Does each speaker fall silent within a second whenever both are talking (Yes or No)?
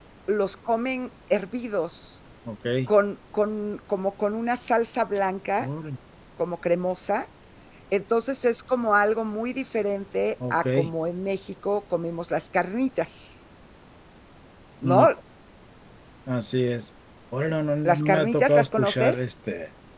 No